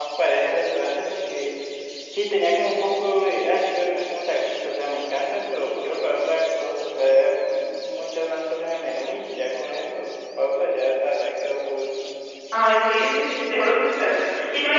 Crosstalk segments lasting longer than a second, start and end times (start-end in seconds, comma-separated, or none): none